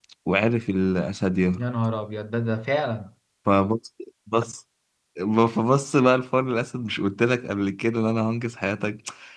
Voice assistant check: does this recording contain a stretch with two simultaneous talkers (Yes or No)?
No